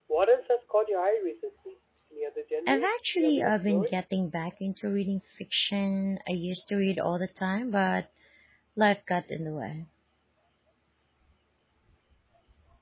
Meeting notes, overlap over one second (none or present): present